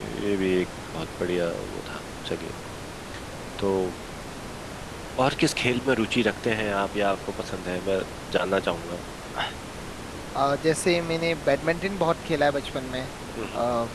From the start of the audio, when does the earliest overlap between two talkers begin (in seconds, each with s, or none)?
none